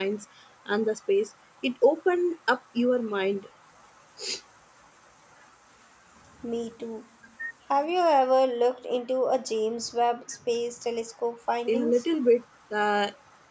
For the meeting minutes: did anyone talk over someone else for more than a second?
No

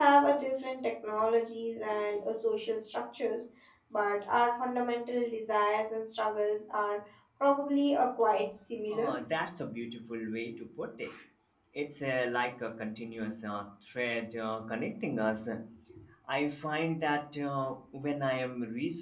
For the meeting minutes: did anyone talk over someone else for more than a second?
No

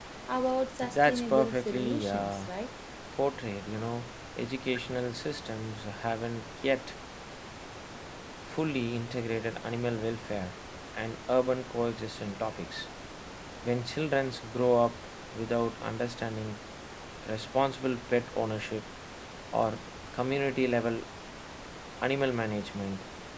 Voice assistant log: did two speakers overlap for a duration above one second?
Yes, from 0.8 s

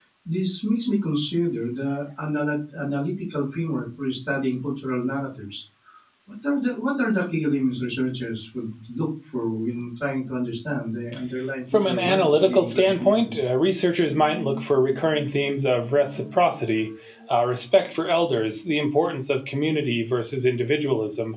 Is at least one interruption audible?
Yes, from 11.7 s

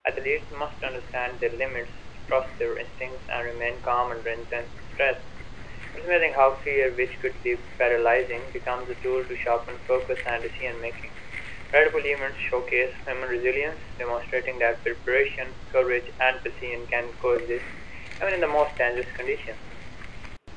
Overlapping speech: No

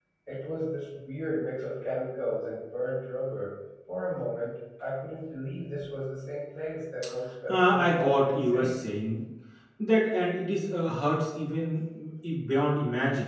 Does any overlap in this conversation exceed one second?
Yes, from 7.5 s

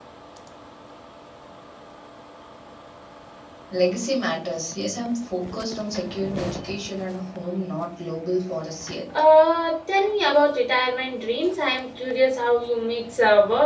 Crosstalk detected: No

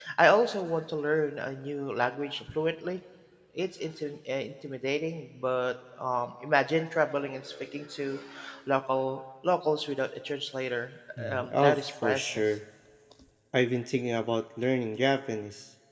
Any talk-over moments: Yes, from 11.3 s

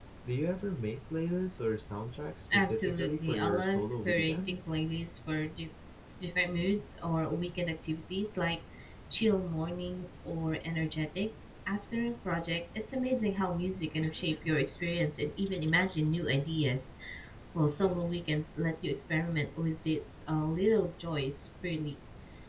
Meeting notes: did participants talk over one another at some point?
Yes, from 2.5 s

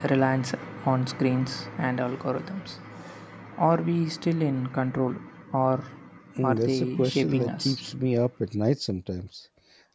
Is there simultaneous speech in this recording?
Yes, from 6.4 s

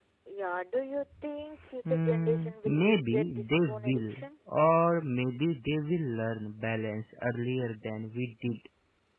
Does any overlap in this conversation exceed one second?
Yes, from 1.8 s

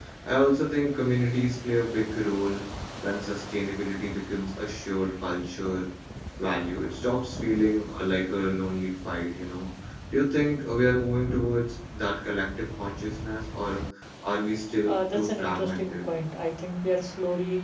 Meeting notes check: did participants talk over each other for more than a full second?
Yes, from 14.9 s

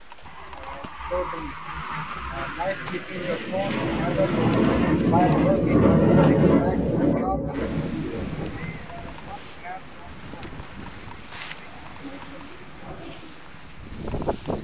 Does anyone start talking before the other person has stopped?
No

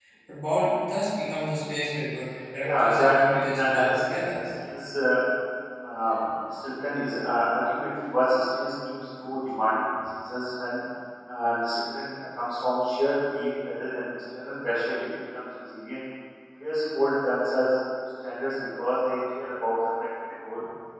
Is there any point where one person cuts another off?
Yes, from 2.6 s

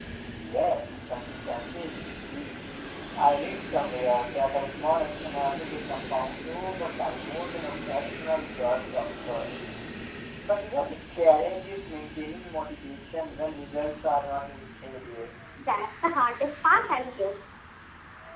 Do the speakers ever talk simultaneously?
No

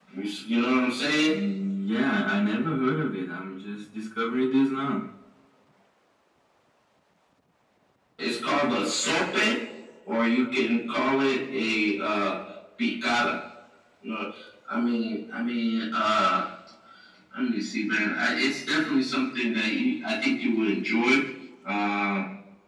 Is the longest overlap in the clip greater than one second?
No

